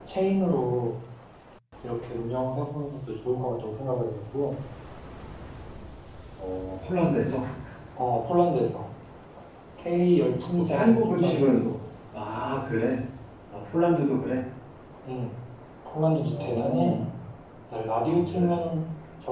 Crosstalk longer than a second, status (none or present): present